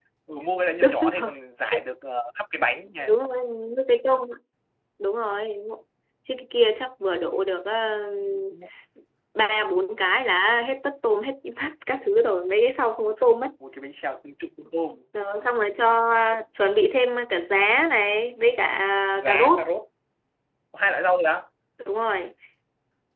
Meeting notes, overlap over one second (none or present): none